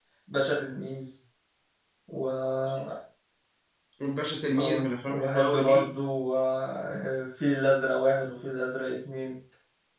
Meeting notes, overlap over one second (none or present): present